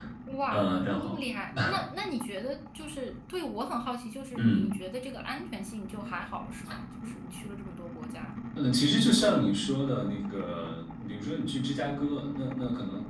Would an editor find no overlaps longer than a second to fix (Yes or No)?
Yes